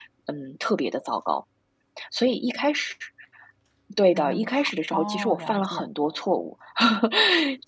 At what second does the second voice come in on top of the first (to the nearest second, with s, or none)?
4 s